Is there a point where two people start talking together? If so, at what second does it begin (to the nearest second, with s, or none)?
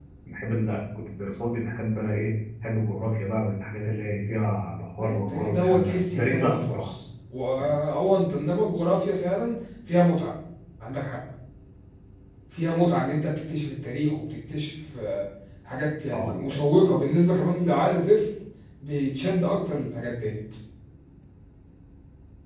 5 s